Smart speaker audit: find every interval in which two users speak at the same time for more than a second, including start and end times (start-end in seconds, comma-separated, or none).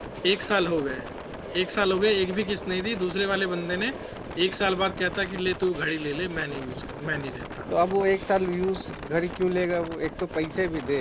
none